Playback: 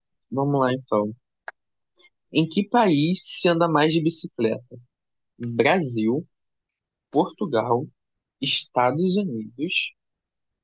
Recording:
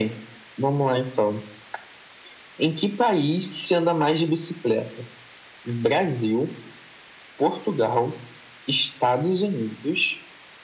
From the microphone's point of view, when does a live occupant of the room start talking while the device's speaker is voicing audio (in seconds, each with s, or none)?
none